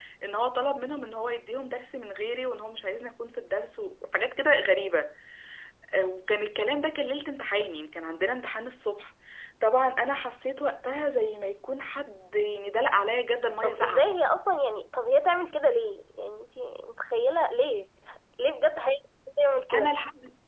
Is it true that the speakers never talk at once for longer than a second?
Yes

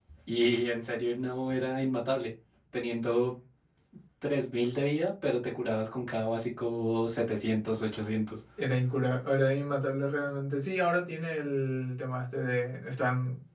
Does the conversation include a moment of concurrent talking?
No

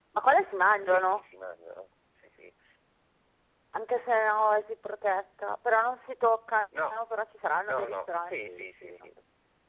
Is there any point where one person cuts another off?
Yes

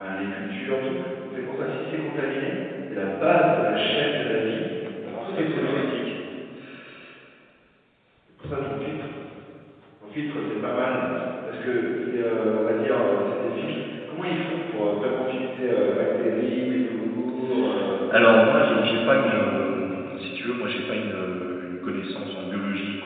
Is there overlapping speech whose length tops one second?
Yes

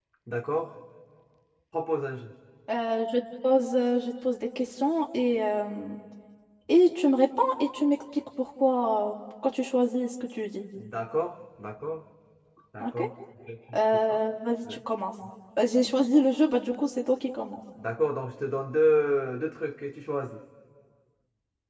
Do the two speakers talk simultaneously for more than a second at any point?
No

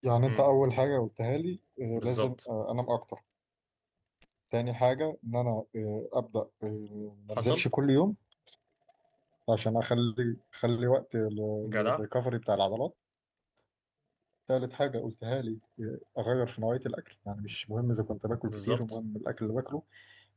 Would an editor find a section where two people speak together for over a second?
No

